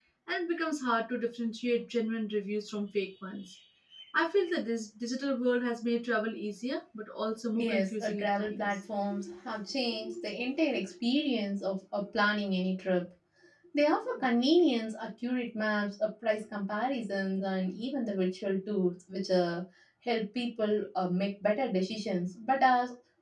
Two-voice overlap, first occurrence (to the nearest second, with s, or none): 8 s